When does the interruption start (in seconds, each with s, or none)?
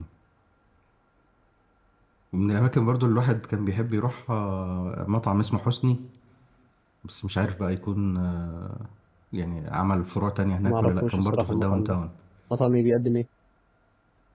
10.7 s